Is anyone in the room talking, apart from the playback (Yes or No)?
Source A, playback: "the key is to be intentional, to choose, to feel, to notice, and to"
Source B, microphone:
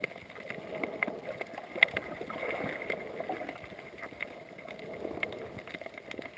No